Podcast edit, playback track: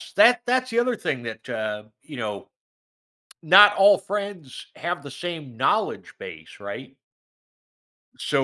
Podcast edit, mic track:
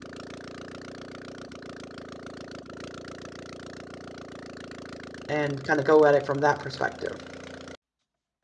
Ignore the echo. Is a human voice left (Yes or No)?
Yes